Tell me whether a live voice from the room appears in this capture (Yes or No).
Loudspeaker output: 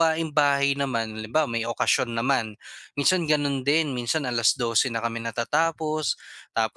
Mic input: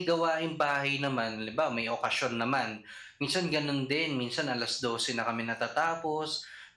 No